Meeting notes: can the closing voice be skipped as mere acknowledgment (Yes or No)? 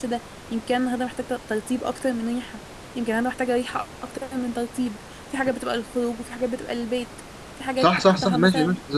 No